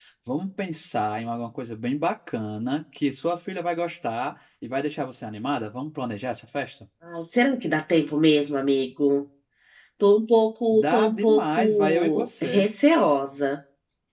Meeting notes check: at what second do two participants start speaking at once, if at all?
10.7 s

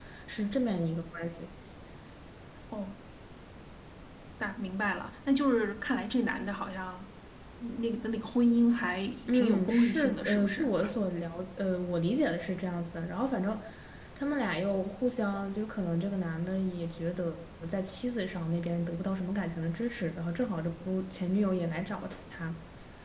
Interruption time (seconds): 9.3 s

